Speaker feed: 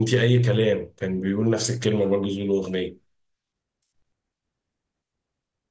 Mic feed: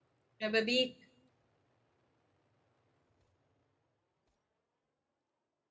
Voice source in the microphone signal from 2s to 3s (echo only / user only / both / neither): neither